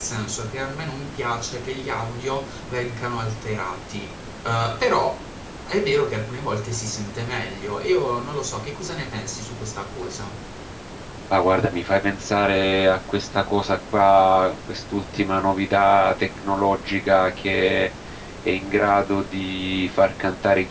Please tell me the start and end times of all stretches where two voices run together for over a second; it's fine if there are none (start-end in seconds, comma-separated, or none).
none